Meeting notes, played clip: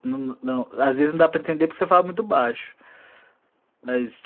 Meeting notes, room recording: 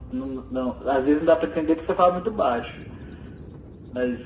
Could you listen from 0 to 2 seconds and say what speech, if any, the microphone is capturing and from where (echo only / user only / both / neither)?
echo only